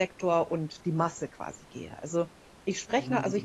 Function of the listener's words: listening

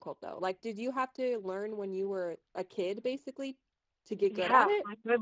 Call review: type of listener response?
taking over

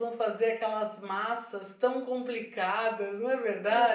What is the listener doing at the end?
taking over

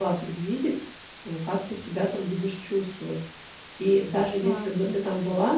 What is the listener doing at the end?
listening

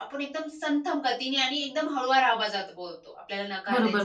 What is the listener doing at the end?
taking over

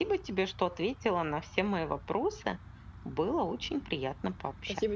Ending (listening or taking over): taking over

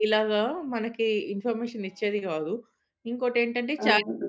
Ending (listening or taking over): listening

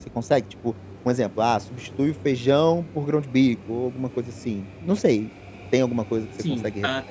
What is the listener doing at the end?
taking over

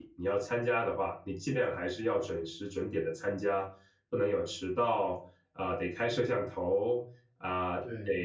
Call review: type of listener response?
listening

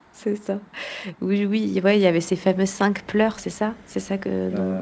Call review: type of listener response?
taking over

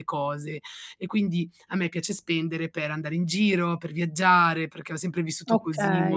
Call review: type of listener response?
listening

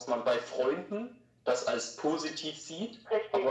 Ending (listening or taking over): listening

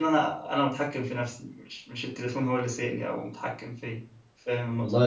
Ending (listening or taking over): taking over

